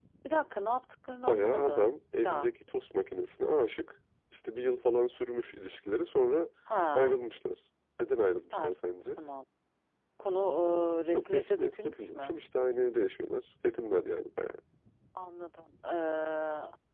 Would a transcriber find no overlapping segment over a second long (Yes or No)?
No